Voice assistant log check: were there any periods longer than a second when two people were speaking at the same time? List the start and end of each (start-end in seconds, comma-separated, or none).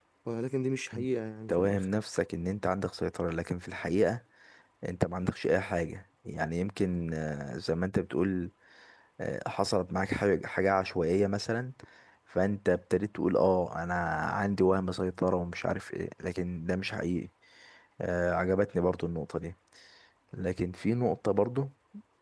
none